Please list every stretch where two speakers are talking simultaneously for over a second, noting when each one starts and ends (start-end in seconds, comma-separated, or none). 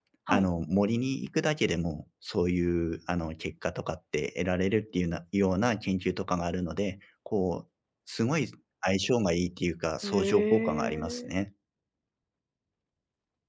10.0-11.4